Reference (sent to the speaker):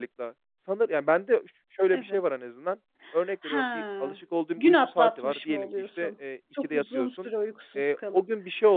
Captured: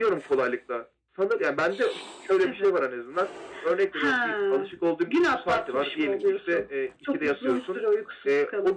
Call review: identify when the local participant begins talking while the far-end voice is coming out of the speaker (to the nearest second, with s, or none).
none